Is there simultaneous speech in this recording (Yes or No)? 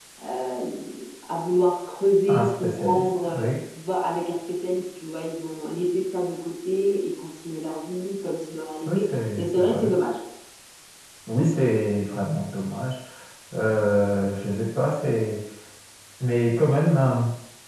Yes